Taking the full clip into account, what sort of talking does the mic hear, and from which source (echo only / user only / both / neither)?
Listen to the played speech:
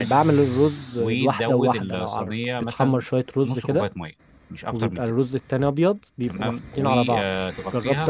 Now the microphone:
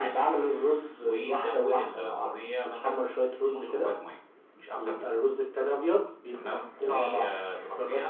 echo only